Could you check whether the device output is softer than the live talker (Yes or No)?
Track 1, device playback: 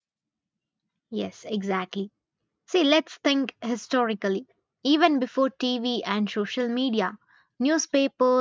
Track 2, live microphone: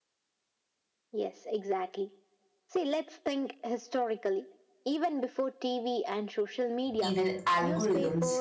Yes